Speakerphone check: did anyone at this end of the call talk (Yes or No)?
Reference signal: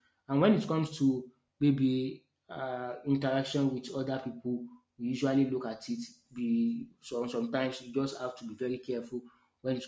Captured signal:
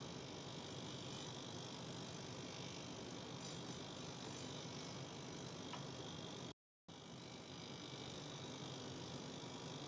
No